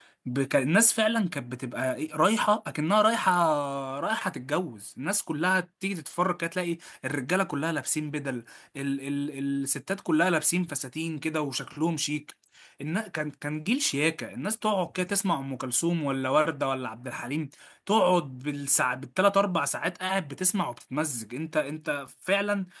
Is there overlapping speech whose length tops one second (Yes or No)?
No